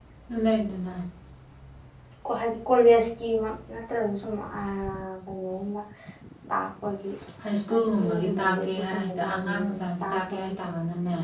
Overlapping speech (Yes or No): Yes